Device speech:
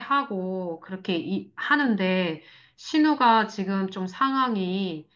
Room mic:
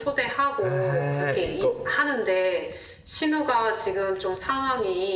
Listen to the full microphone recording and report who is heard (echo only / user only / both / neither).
both